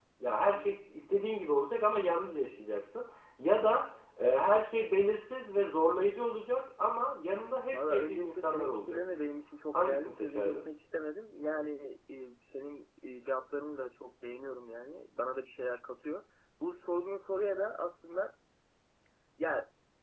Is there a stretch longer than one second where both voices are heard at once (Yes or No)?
Yes